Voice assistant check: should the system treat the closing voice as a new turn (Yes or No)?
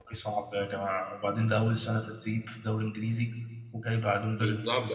Yes